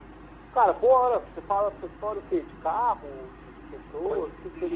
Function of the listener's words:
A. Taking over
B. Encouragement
A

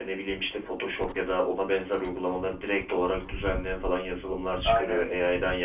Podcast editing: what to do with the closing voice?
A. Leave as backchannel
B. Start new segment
A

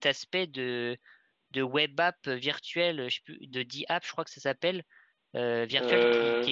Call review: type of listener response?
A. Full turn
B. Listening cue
B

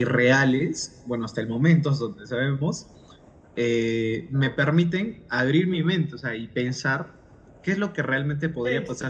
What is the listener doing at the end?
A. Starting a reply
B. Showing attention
B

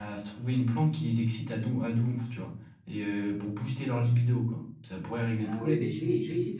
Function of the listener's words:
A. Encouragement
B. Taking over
B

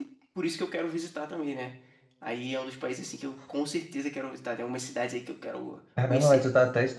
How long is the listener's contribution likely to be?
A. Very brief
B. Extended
B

